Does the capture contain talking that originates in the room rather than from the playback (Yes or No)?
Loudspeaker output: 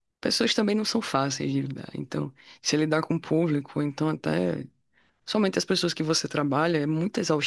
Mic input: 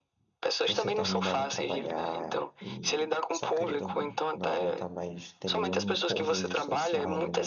Yes